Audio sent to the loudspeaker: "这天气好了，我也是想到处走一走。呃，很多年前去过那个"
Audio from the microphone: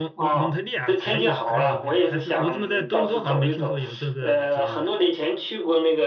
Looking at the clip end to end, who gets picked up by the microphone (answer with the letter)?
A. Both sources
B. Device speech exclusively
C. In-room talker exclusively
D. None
A